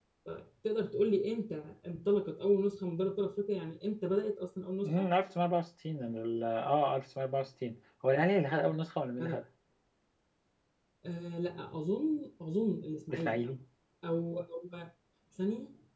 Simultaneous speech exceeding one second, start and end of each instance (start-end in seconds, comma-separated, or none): none